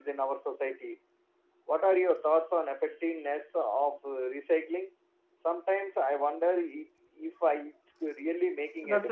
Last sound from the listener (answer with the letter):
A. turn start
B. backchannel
A